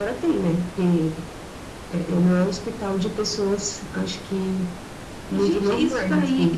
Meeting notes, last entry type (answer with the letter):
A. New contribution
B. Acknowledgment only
A